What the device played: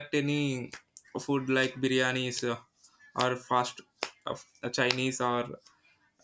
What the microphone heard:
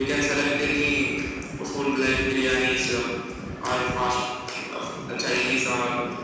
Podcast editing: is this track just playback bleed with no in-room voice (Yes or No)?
Yes